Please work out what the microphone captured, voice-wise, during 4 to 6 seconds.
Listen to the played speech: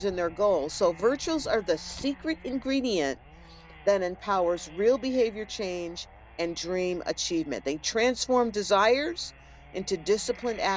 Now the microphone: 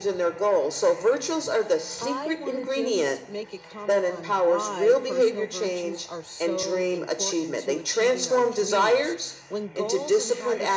both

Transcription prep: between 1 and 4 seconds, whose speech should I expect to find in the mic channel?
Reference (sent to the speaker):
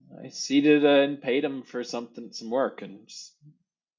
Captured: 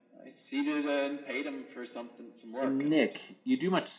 both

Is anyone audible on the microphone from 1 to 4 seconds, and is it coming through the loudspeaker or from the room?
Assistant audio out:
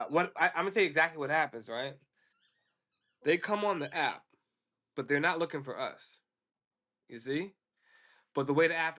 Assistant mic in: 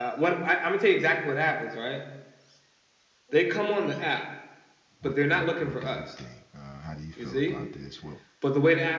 echo only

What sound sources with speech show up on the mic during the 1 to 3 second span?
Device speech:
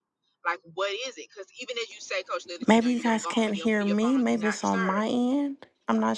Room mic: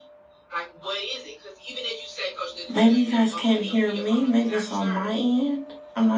echo only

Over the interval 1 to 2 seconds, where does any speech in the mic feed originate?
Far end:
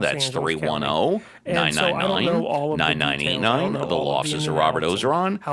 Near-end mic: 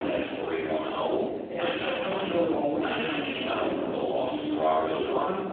echo only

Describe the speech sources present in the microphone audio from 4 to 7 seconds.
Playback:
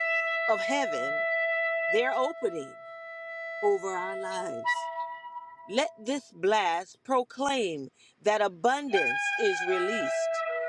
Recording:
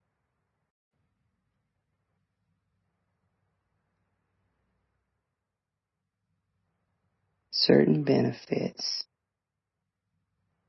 neither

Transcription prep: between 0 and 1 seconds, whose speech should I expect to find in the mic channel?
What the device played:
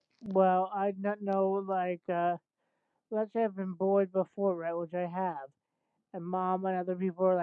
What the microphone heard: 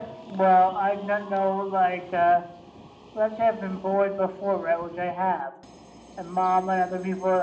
echo only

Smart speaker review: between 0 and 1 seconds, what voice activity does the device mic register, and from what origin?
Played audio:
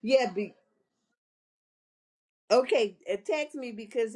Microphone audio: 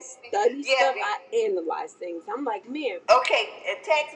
both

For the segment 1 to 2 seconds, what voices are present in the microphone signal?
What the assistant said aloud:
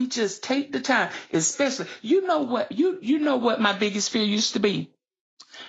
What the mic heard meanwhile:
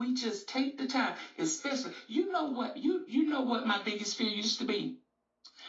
echo only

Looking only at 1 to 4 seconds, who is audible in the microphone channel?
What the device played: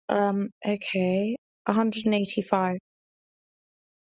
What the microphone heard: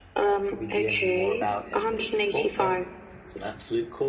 both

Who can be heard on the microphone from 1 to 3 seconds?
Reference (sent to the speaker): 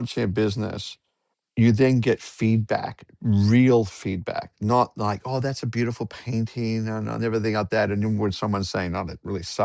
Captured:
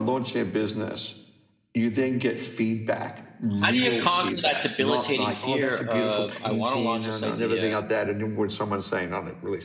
echo only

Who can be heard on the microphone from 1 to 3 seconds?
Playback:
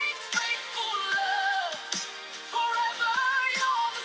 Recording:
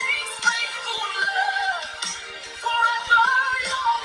echo only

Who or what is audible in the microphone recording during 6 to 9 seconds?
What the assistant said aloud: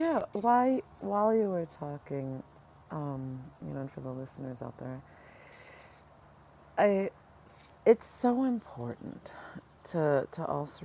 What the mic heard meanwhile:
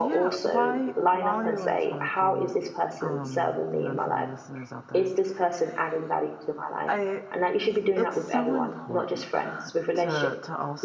both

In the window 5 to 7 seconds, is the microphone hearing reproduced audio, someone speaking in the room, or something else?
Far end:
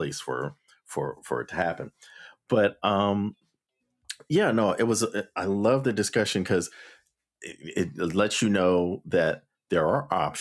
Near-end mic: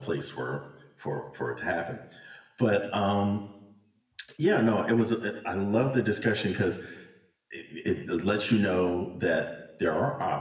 echo only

